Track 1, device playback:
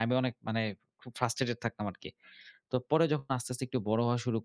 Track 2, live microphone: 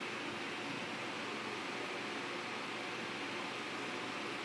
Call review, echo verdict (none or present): none